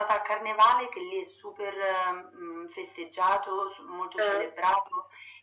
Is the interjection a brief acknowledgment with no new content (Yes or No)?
Yes